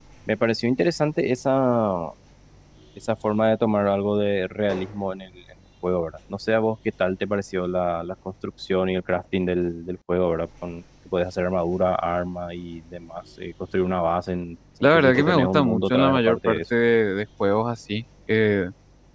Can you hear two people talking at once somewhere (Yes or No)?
Yes